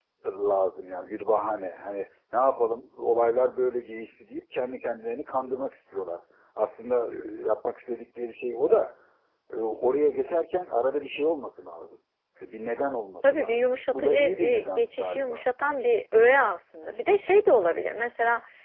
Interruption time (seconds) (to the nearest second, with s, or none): 13 s